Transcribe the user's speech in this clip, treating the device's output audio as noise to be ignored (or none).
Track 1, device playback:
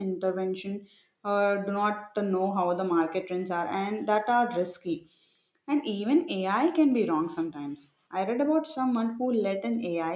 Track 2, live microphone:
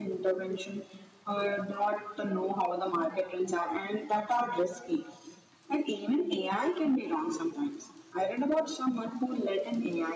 none